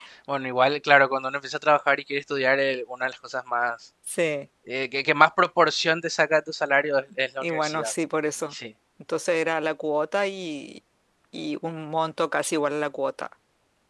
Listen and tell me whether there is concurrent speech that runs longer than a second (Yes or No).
No